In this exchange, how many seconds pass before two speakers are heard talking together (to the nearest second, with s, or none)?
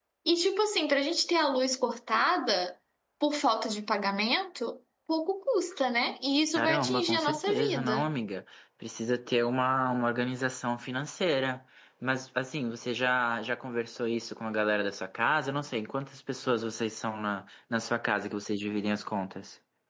7 s